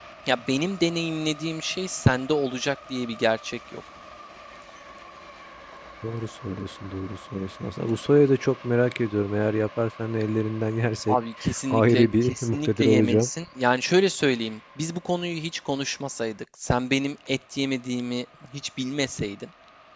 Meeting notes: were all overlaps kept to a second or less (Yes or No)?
No